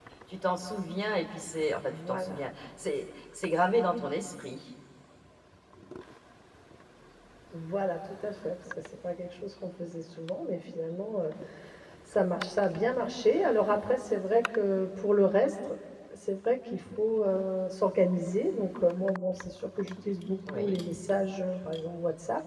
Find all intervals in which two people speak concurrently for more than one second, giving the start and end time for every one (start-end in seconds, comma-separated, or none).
none